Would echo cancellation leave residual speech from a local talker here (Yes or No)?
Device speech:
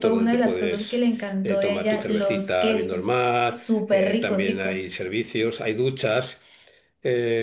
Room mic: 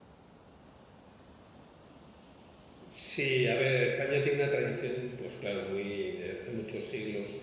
Yes